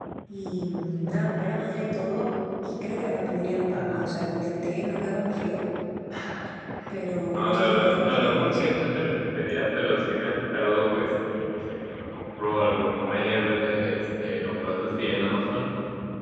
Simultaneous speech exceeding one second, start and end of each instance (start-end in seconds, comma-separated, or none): 7.3-8.6